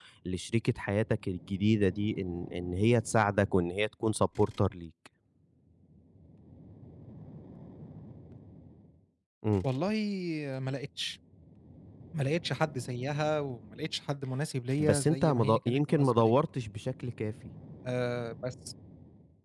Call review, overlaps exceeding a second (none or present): present